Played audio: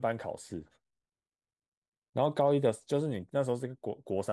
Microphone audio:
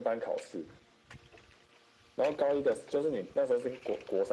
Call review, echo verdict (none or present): present